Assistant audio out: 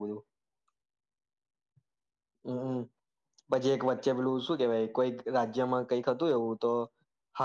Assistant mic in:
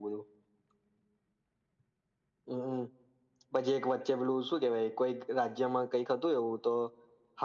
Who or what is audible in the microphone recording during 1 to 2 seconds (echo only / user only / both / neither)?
neither